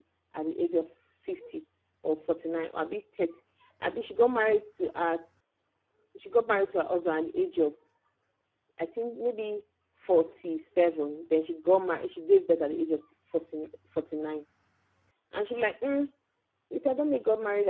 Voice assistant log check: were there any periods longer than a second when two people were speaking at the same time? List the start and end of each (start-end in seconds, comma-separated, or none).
none